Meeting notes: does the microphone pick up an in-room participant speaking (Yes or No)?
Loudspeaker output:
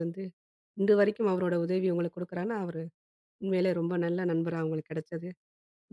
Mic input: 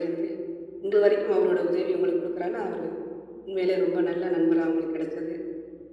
No